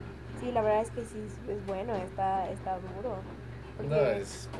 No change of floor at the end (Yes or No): No